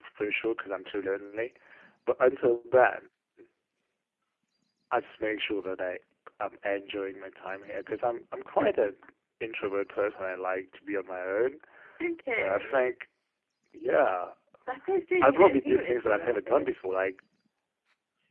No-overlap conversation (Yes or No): No